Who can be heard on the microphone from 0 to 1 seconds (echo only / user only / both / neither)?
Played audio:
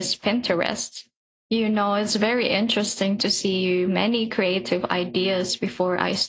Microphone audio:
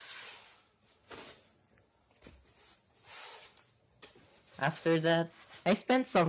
neither